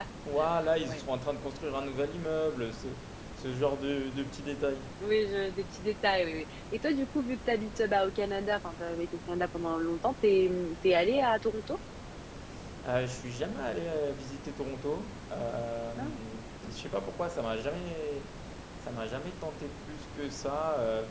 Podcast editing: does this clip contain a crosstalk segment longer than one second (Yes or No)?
No